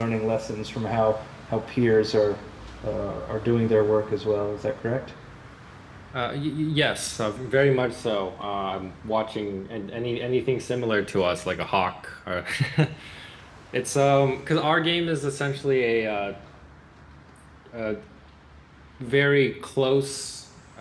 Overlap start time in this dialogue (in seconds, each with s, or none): none